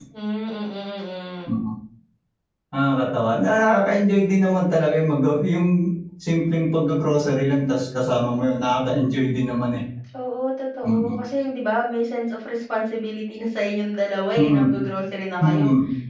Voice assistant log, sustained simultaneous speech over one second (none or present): none